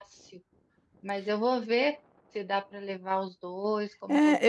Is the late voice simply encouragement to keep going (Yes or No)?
No